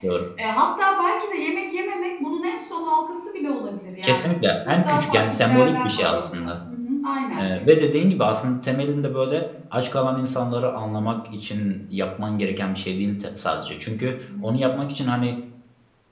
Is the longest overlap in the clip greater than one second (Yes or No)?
Yes